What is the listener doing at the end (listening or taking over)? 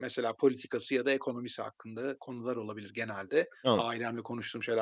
listening